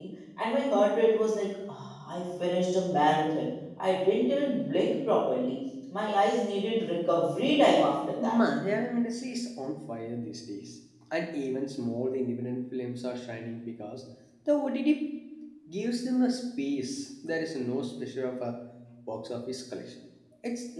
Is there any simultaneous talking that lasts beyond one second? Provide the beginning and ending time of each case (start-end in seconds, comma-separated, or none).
none